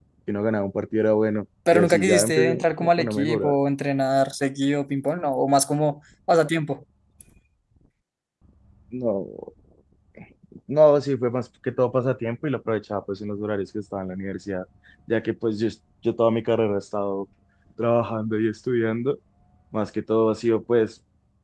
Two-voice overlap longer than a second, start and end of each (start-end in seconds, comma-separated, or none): 1.7-3.5